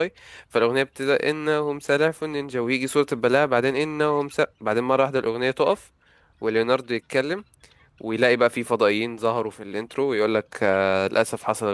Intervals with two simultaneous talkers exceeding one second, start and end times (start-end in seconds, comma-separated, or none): none